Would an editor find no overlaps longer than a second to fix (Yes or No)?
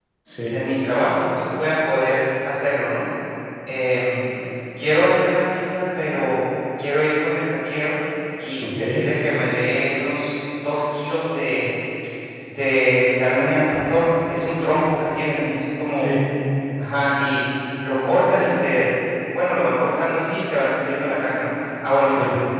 Yes